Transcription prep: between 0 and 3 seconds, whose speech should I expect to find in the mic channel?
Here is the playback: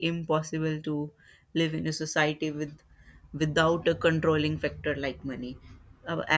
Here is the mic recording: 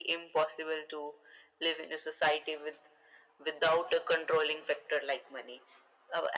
echo only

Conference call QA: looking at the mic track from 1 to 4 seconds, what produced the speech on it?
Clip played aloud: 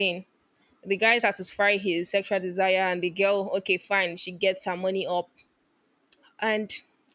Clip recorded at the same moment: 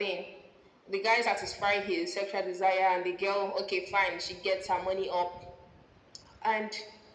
echo only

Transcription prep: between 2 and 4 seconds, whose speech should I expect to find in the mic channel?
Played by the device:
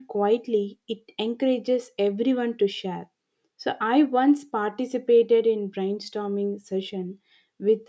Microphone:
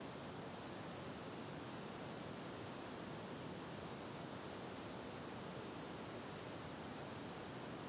neither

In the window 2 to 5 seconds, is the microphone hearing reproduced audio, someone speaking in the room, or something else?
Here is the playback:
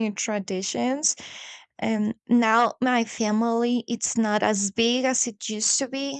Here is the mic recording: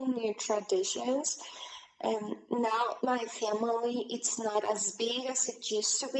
echo only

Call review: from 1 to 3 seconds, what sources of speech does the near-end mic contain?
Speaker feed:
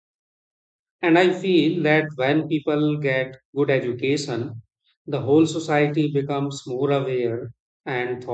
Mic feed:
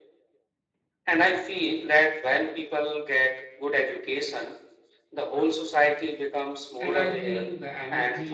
echo only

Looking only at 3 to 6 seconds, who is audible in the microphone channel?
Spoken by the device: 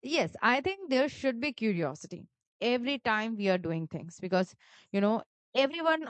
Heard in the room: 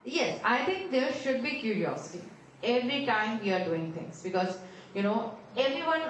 echo only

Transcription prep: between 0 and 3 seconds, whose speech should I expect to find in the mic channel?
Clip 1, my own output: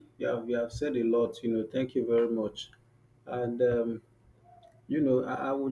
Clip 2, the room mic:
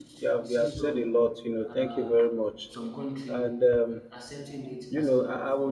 both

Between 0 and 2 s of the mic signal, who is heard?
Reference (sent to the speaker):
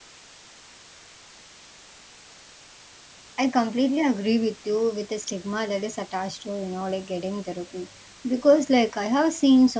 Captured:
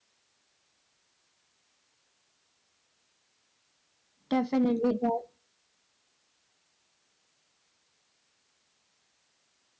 neither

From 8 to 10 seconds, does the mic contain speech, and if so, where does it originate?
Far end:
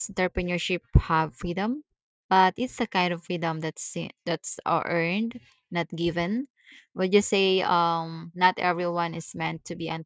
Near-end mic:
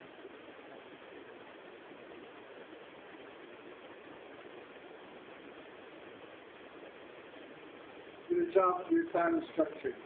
user only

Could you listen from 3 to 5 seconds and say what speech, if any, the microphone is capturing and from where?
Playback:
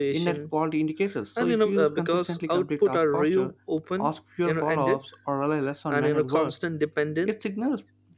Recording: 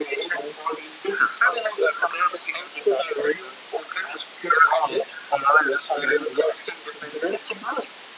echo only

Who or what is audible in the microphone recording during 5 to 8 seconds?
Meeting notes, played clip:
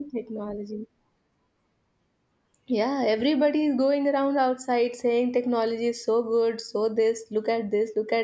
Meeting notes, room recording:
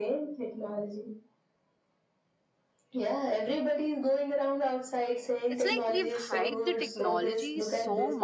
both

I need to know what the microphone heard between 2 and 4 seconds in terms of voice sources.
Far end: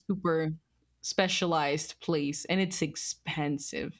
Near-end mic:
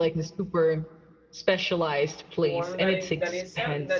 both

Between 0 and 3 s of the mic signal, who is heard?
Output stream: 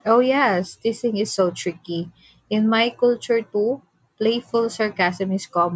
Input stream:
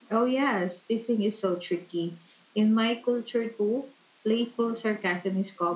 echo only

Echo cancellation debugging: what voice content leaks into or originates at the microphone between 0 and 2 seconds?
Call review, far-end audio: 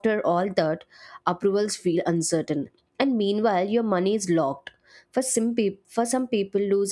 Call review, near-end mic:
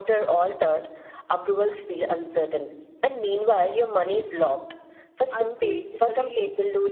echo only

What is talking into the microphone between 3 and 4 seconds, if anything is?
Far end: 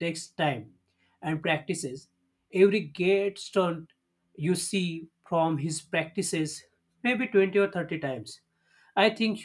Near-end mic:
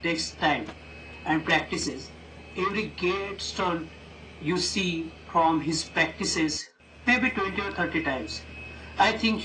echo only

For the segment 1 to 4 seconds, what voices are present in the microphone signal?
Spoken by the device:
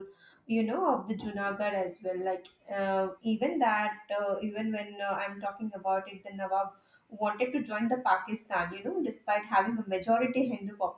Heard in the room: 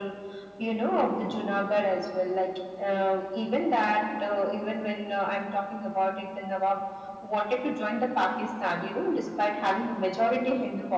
echo only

